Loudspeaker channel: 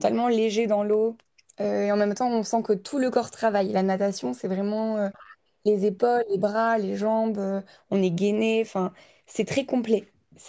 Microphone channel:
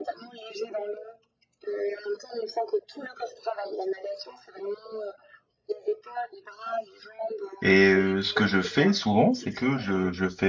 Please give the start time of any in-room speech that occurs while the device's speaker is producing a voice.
7.6 s

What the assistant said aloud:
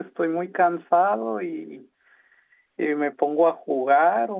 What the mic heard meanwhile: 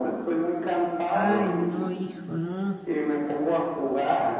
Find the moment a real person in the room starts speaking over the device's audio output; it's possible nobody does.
1.1 s

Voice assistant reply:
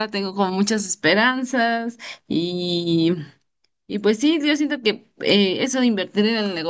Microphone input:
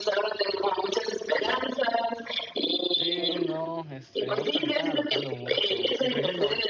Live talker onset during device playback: 3.0 s

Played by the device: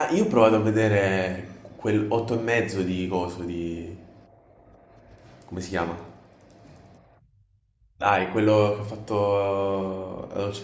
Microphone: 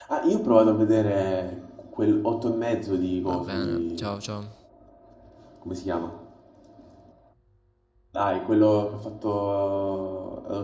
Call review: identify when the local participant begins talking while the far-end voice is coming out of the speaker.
3.3 s

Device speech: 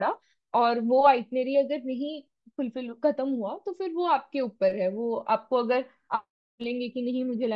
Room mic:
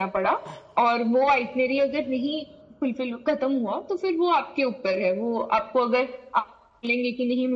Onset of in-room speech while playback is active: none

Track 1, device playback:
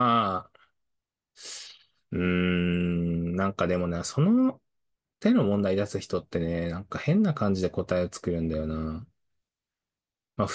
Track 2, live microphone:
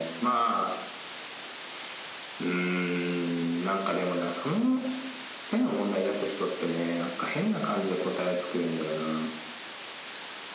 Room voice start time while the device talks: none

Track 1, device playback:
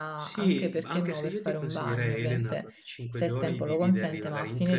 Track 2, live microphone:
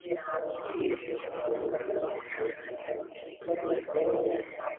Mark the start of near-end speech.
none

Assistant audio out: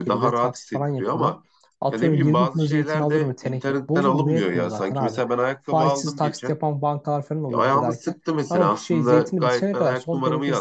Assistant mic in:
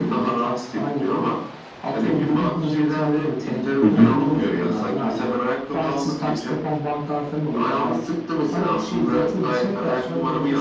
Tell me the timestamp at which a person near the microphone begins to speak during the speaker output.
3.8 s

